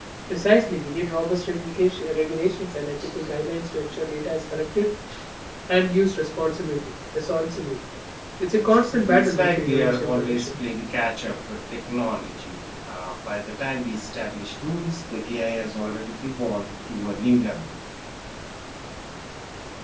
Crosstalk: present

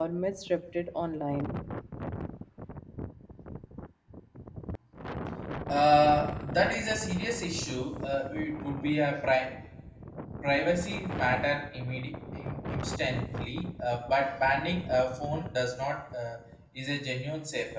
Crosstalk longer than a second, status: none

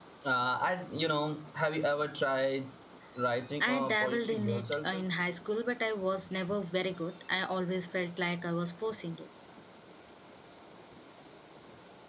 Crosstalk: present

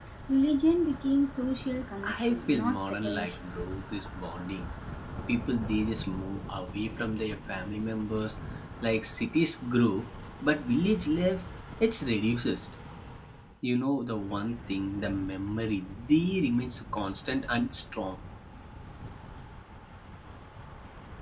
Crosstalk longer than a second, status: present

